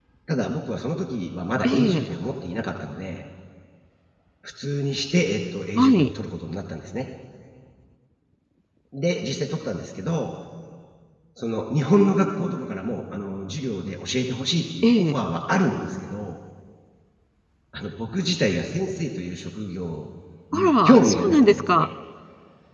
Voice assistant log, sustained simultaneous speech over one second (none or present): present